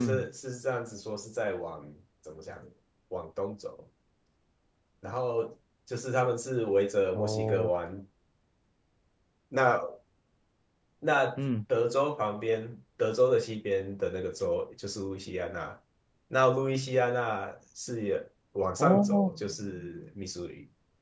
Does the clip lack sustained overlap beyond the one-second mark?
Yes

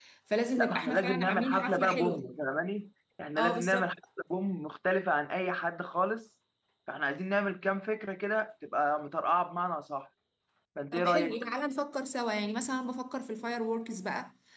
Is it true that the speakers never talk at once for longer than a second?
No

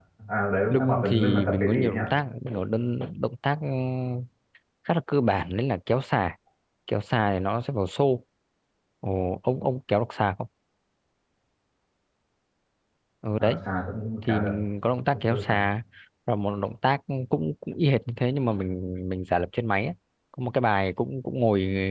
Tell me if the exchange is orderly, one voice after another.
No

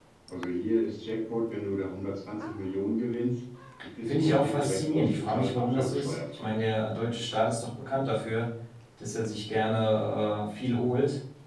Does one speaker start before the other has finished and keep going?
Yes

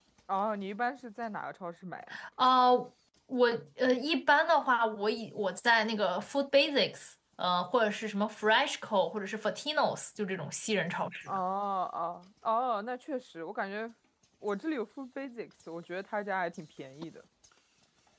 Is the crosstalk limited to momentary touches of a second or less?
Yes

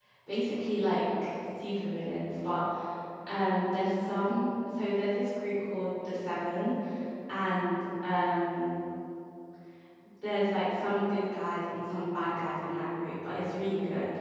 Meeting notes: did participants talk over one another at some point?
No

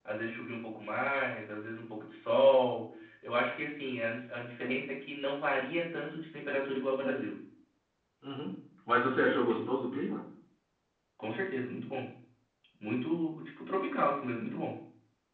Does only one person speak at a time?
Yes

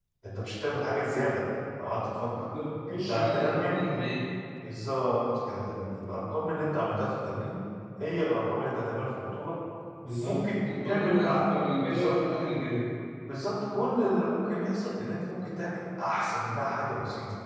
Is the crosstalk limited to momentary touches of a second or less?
No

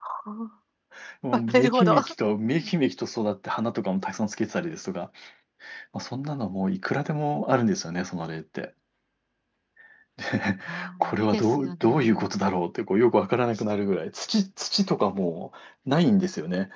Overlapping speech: Yes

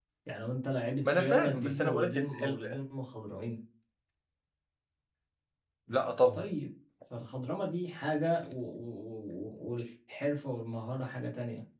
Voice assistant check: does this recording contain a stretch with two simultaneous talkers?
Yes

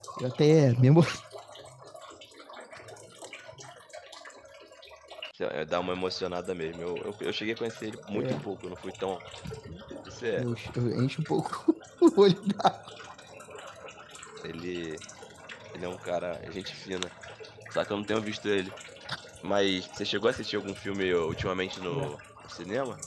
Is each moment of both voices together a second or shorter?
Yes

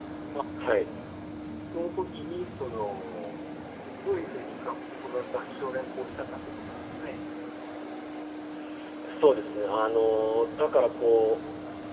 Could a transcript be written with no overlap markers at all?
Yes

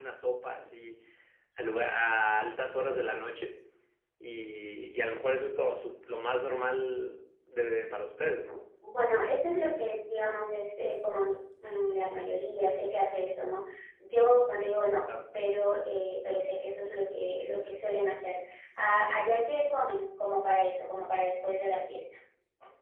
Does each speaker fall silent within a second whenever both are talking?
Yes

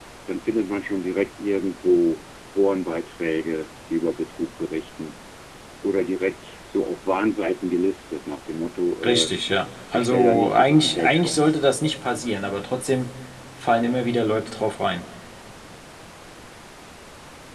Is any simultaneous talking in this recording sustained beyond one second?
Yes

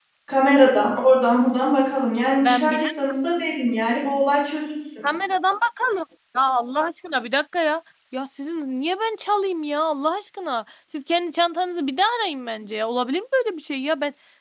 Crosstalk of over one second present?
No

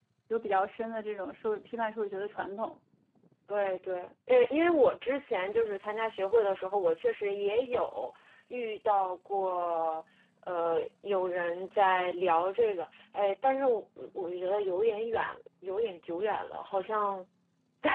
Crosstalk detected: No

